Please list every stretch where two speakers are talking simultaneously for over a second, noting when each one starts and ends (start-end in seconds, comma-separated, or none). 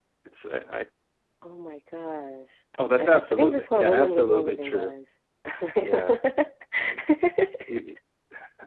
3.0-4.9